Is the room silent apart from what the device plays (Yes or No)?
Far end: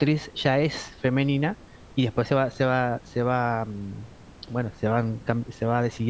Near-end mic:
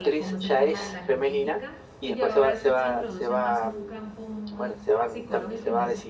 No